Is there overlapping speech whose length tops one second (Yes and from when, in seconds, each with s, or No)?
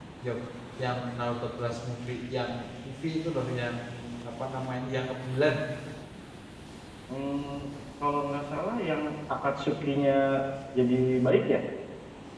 No